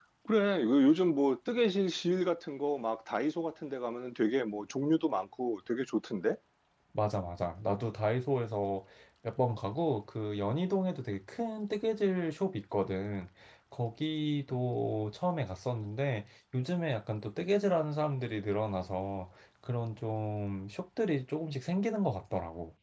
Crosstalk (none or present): none